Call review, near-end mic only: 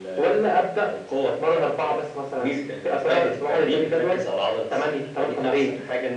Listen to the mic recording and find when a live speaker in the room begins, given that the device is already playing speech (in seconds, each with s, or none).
none